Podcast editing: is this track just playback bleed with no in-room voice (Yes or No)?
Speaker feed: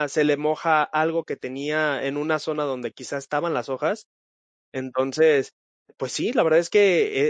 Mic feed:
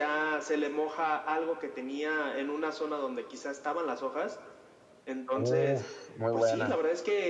No